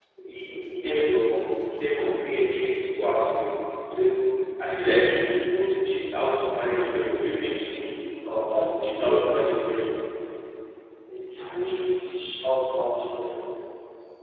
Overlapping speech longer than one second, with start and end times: 8.3-9.5

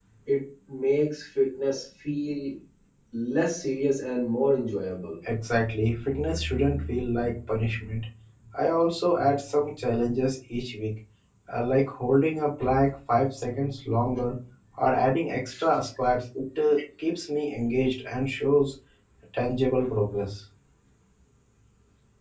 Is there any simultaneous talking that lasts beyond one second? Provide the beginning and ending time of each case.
none

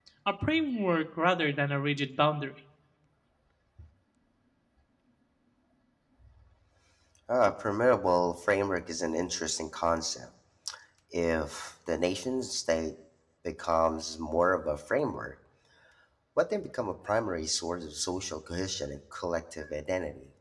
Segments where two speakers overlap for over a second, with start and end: none

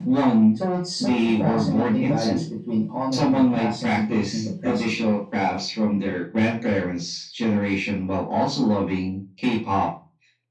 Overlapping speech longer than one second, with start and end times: 1.0-2.4, 3.1-4.9

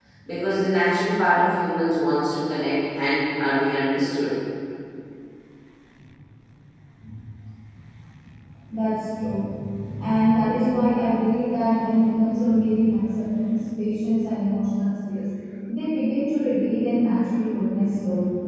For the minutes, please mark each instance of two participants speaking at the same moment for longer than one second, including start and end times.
none

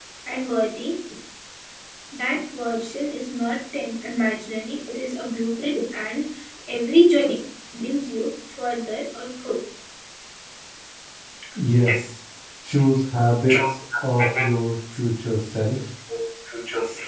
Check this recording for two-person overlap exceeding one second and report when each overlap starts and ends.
none

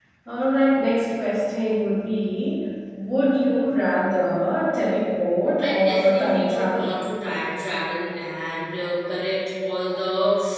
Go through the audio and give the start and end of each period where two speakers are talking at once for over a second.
5.6-6.9

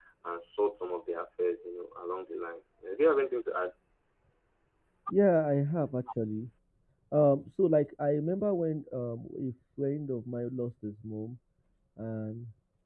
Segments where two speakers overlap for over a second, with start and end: none

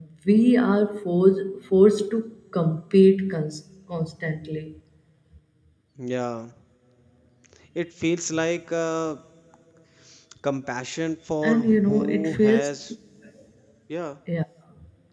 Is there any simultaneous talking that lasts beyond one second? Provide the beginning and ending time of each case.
11.4-12.7

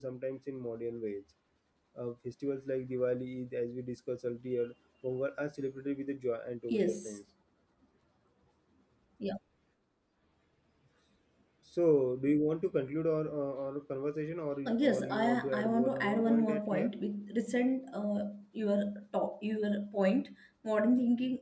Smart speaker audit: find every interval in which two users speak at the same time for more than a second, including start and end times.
14.7-16.9

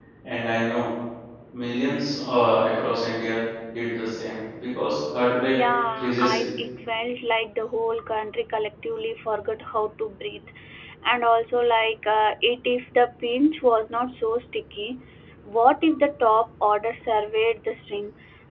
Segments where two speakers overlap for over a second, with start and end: none

